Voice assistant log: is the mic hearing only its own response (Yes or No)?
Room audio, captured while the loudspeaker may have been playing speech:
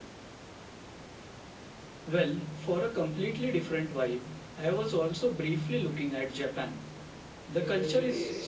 No